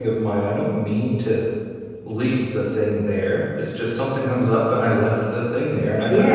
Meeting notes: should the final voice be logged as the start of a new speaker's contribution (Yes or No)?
Yes